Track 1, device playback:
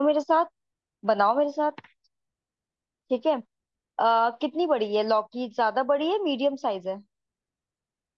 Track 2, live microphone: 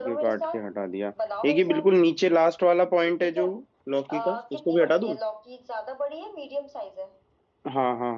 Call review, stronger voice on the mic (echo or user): user